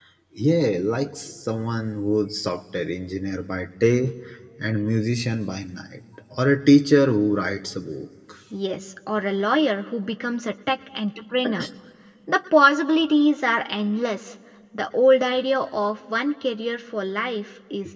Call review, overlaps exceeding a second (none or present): none